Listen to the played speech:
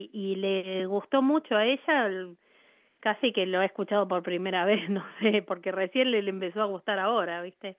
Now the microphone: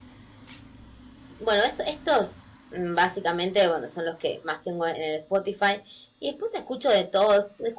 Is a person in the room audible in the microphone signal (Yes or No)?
Yes